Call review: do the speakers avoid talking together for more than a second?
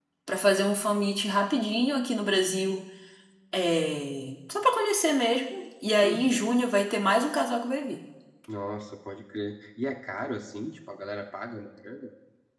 Yes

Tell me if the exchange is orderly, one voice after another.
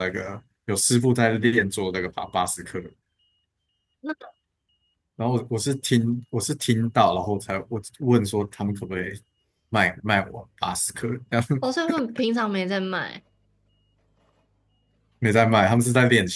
Yes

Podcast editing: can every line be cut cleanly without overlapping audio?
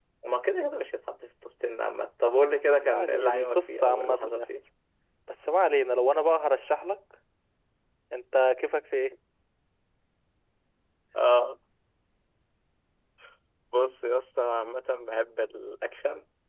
No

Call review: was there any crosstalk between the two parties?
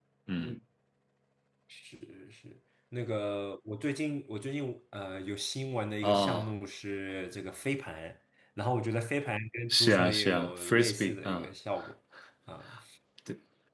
Yes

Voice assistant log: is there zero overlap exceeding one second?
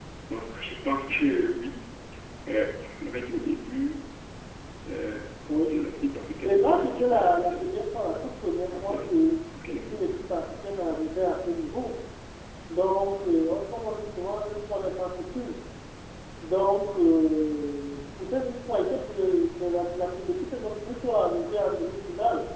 No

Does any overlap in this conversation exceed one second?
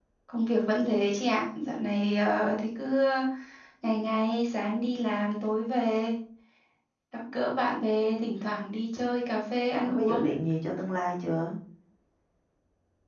No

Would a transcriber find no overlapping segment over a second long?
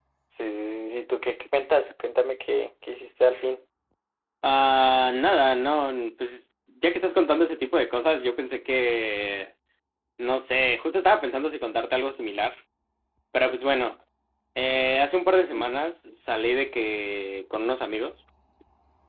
Yes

